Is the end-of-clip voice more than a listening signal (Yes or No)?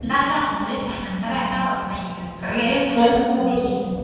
Yes